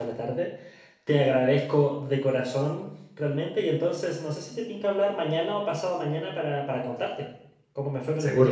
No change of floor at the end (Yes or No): No